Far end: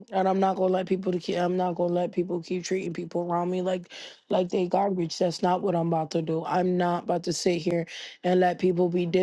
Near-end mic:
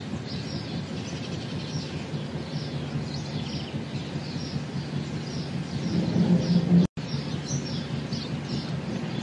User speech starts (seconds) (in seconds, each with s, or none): none